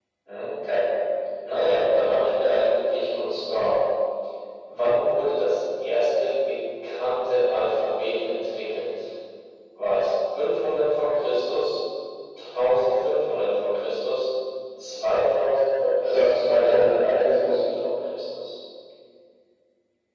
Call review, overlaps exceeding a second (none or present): present